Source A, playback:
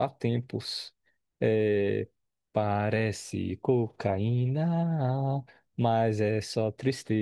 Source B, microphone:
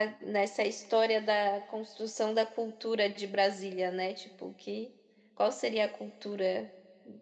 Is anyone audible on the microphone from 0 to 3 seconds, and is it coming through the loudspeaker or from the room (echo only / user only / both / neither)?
user only